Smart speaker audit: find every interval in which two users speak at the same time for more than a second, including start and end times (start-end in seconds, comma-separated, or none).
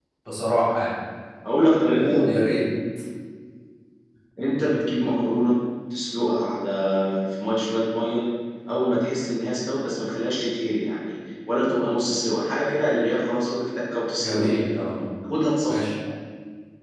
none